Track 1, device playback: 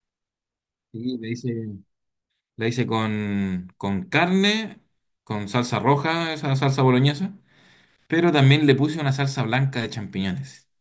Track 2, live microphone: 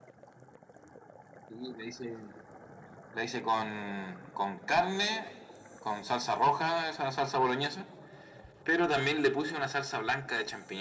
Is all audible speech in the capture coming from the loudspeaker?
Yes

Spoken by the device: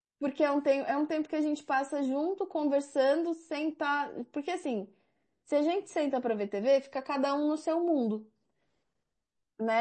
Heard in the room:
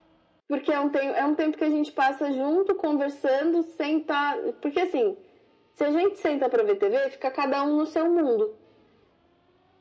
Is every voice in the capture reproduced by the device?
Yes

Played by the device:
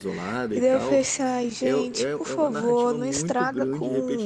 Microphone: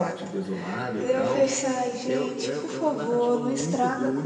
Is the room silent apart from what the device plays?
Yes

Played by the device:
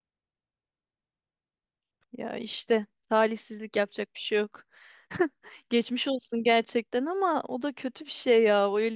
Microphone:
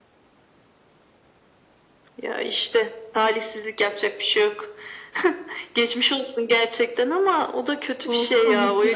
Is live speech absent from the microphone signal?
No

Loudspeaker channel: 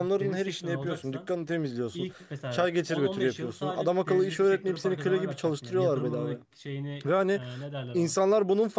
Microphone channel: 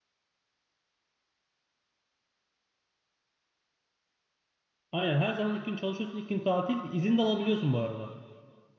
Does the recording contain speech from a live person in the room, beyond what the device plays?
Yes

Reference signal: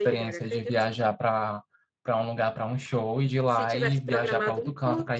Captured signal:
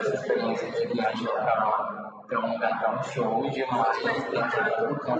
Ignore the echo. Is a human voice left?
No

